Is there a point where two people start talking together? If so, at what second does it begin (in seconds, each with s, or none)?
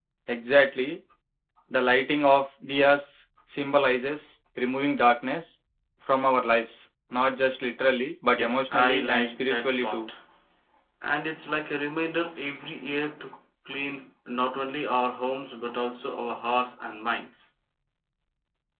8.3 s